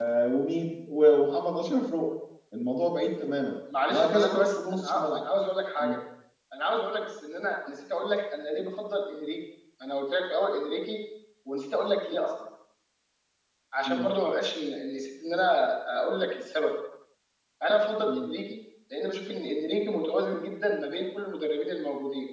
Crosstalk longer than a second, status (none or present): present